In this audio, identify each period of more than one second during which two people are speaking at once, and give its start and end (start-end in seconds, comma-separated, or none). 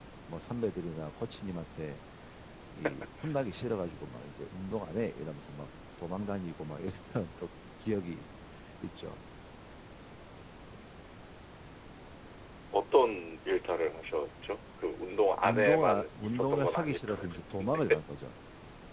15.4-17.8